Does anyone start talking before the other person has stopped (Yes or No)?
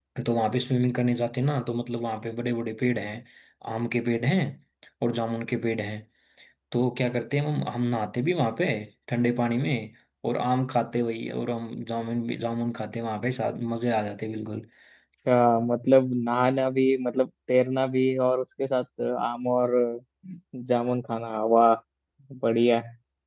No